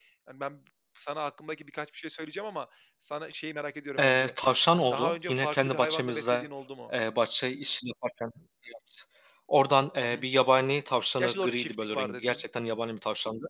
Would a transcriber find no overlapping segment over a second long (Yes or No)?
No